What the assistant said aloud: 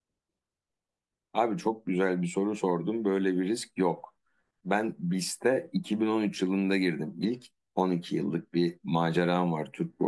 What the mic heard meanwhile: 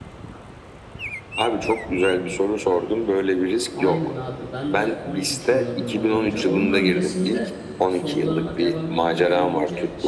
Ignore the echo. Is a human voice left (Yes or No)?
Yes